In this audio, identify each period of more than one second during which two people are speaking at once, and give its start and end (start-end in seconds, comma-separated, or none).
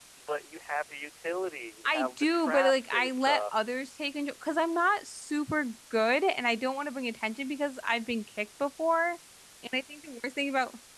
1.8-3.4